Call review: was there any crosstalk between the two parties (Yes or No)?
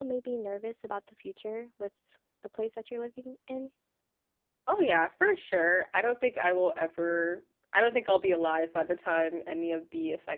No